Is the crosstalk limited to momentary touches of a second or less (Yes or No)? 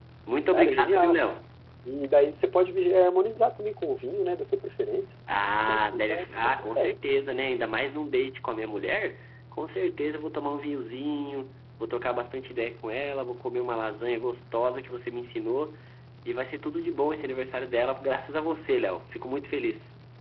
No